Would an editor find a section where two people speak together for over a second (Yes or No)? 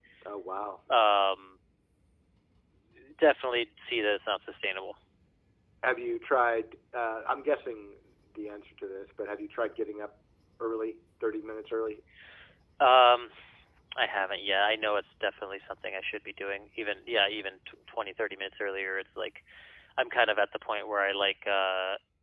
No